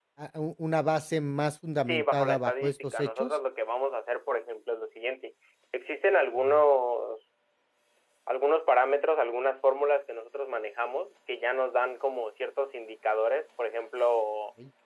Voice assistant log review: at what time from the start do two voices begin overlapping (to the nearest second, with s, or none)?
2 s